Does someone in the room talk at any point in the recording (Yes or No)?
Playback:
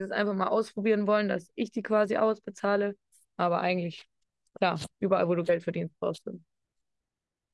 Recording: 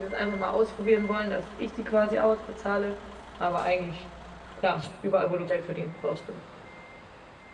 No